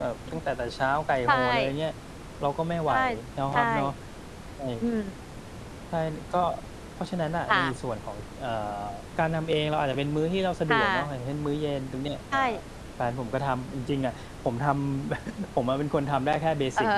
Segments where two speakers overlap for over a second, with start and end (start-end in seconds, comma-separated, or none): none